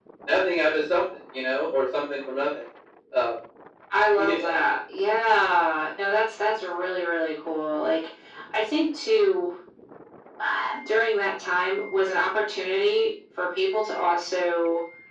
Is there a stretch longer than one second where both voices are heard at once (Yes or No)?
No